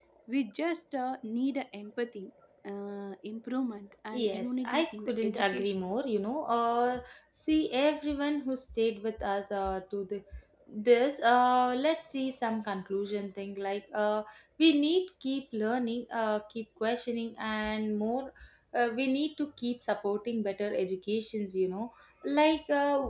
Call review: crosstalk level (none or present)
present